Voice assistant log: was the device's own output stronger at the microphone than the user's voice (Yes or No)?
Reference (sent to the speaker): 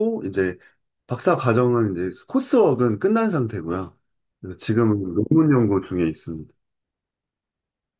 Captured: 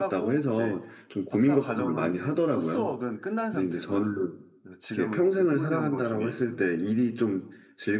No